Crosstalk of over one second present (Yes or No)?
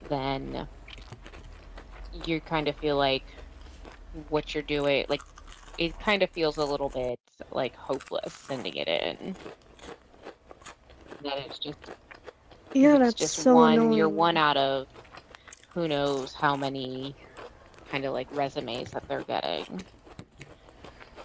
Yes